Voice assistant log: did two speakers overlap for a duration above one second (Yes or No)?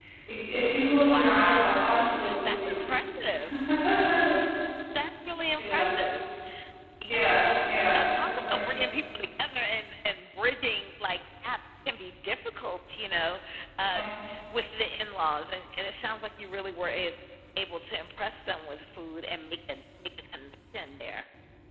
Yes